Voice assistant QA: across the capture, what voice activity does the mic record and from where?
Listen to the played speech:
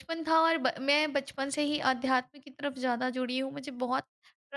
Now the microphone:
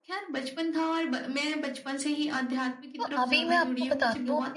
both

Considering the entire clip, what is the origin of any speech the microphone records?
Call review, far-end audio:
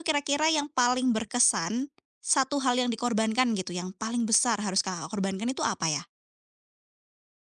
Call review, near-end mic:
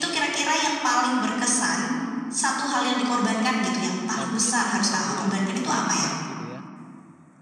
both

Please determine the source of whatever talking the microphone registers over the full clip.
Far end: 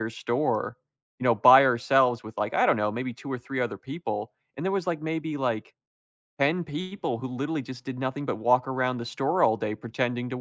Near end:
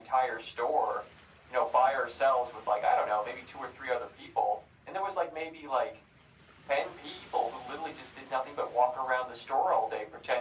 echo only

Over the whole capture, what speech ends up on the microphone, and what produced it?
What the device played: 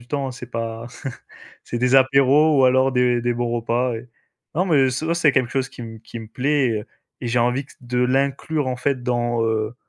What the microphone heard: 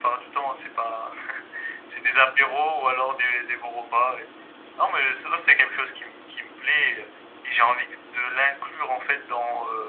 echo only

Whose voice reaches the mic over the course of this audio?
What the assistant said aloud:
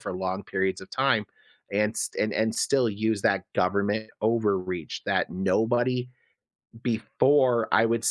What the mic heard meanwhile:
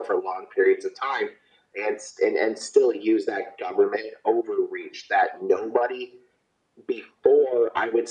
echo only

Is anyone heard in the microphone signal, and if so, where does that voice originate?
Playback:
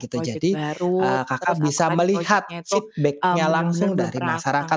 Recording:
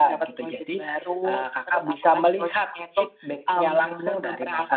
echo only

